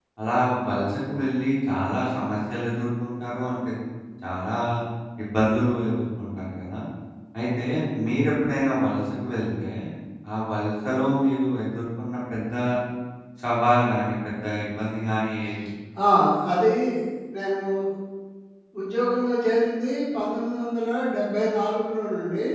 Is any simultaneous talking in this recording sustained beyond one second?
No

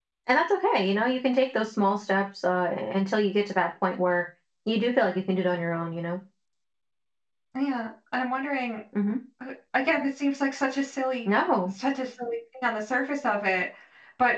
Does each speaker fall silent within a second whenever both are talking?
Yes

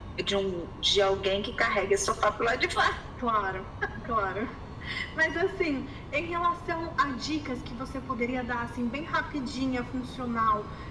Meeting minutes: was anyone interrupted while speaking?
No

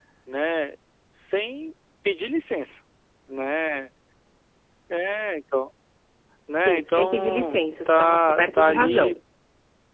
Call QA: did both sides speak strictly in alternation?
No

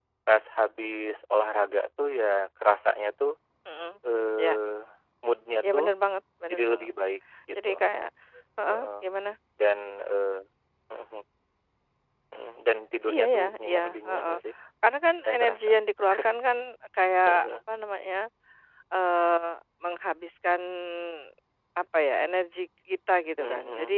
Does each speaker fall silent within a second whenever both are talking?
No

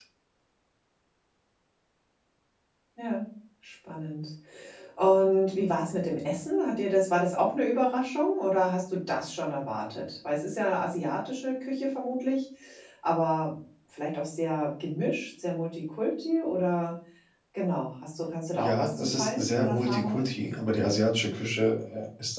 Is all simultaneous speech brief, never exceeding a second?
No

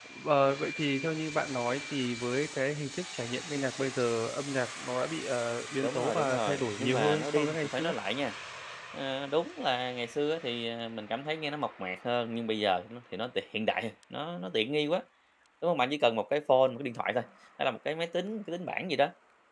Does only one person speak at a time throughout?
No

